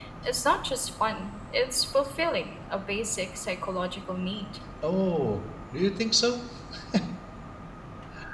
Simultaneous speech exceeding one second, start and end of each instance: none

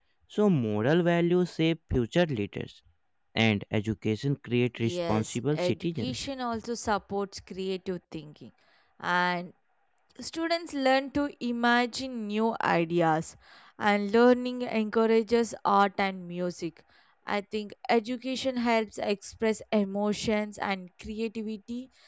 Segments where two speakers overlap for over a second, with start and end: 4.8-6.2

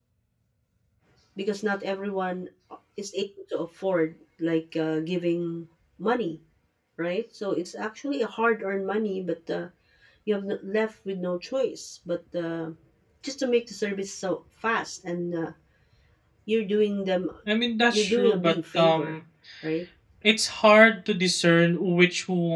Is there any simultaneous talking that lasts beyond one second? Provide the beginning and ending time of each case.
17.9-19.1

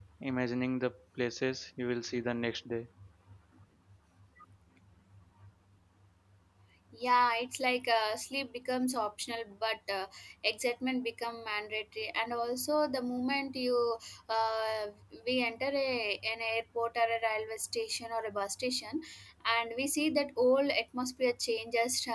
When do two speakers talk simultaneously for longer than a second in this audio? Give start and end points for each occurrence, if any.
none

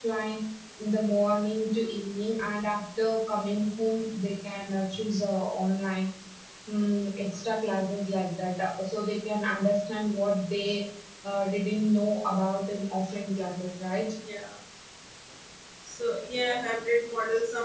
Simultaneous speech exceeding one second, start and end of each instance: none

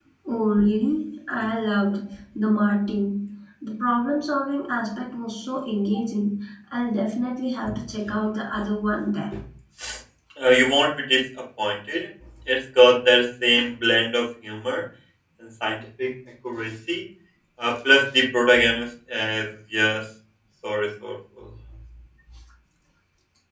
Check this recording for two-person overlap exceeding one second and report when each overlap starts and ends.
none

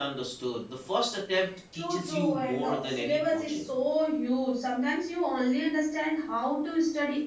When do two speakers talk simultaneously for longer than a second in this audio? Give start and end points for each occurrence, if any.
1.7-3.7

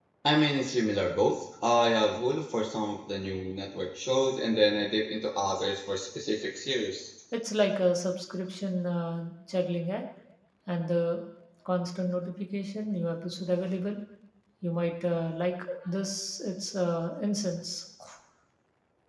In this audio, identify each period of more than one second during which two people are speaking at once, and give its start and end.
none

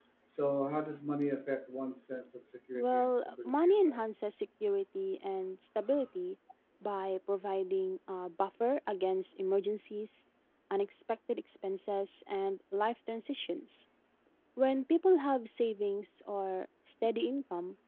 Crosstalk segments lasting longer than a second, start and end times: 2.7-4.0

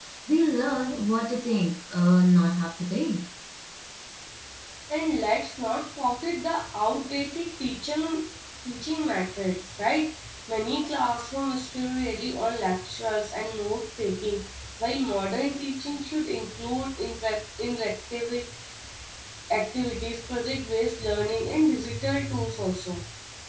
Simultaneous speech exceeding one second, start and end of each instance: none

